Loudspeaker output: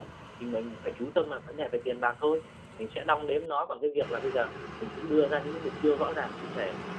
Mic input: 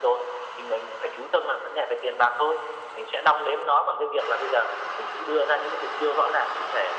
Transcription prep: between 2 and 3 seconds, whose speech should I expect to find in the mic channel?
echo only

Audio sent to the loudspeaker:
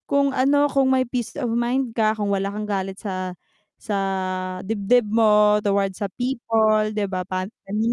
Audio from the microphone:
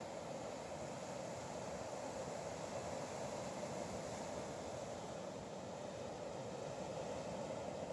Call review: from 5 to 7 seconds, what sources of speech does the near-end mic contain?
neither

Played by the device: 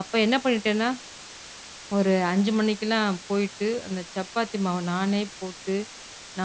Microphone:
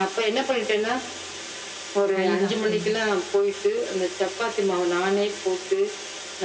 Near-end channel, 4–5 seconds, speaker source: echo only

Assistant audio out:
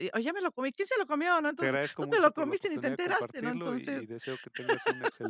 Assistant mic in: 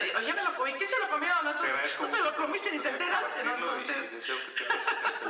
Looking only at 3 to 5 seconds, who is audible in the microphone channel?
echo only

